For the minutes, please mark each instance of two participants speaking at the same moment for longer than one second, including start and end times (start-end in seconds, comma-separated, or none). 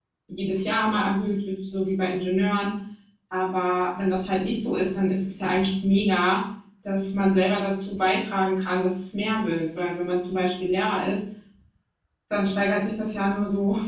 none